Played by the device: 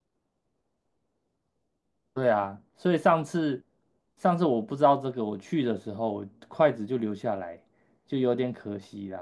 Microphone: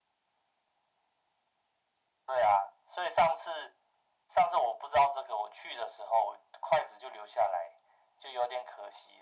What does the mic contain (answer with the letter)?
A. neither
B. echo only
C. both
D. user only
B